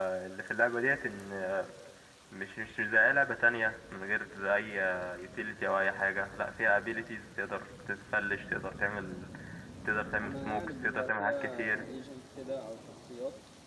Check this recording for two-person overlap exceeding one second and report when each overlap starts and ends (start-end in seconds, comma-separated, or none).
10.2-11.8